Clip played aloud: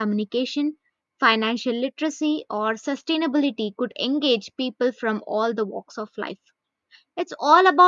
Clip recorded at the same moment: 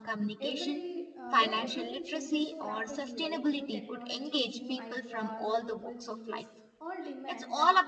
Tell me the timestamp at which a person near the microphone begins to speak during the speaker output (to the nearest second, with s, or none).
0 s